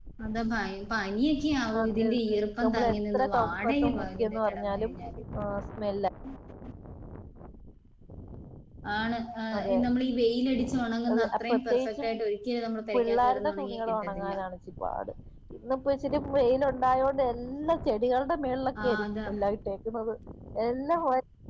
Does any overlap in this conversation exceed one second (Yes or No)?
Yes